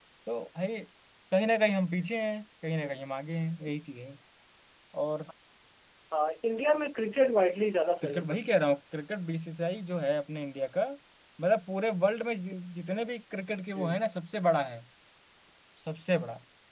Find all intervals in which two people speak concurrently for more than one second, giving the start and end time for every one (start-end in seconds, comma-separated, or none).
none